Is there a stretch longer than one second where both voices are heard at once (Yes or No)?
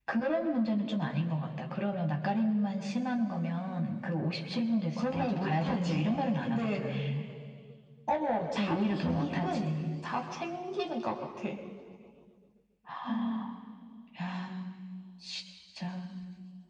Yes